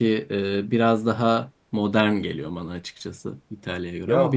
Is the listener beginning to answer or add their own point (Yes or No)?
Yes